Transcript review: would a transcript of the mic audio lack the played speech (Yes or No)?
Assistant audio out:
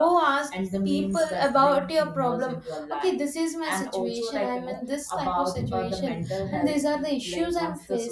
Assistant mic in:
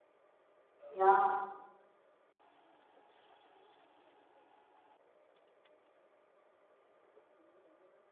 Yes